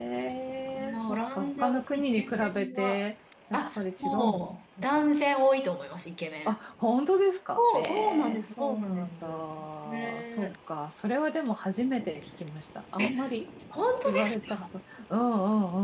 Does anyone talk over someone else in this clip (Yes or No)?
Yes